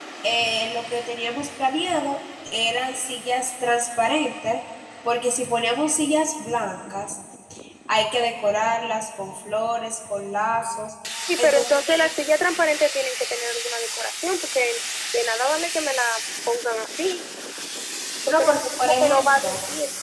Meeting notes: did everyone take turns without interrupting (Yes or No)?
No